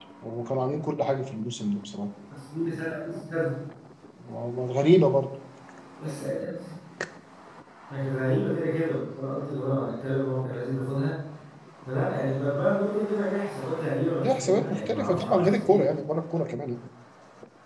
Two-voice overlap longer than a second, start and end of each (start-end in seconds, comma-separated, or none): 14.2-15.8